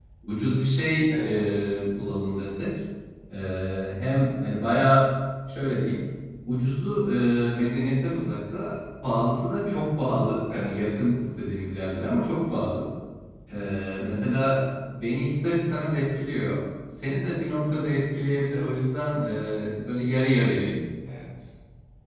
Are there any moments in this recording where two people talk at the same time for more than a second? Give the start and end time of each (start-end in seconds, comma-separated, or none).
none